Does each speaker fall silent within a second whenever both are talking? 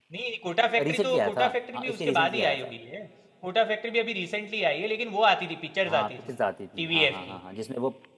No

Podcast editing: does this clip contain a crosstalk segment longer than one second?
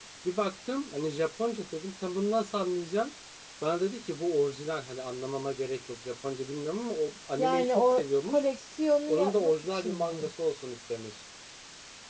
Yes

